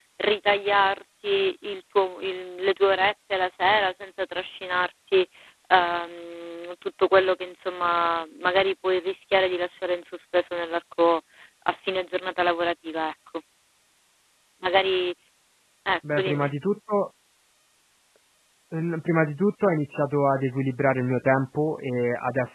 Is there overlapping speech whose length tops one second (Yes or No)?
No